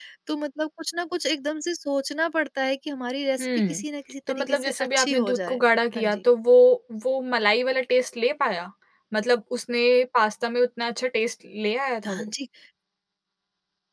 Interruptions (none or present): present